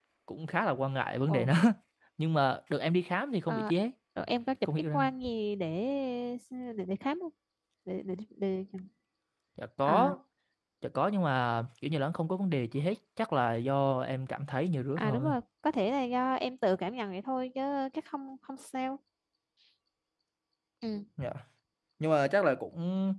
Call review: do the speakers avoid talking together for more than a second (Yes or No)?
Yes